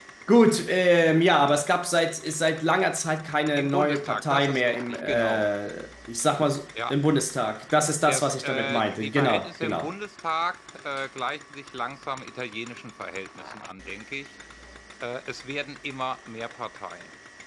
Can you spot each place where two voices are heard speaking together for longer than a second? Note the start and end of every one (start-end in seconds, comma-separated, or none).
3.6-5.5, 8.1-9.9